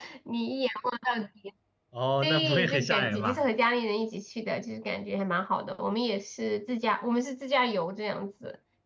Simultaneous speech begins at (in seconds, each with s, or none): 2.2 s